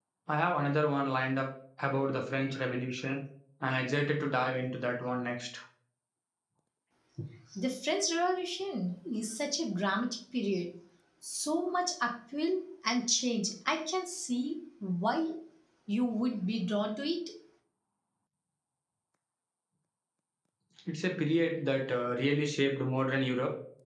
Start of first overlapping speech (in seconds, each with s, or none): none